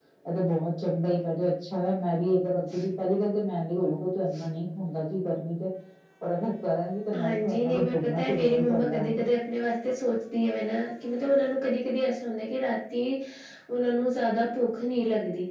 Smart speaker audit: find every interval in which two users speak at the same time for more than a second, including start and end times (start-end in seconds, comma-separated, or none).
7.2-9.2